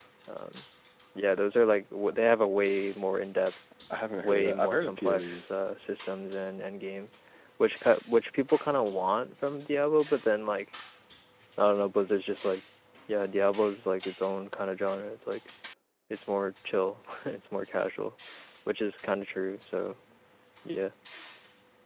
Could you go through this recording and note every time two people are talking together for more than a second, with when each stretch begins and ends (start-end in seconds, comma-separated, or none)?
4.2-5.5